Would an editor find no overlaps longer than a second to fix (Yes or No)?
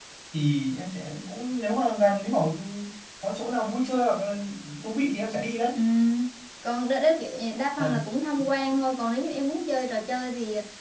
Yes